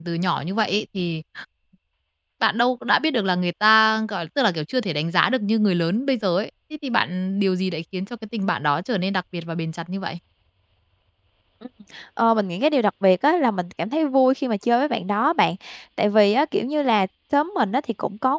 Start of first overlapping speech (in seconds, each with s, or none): none